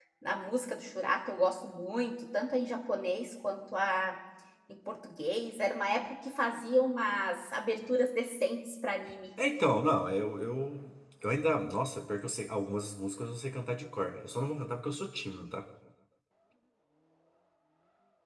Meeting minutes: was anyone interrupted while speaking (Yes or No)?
No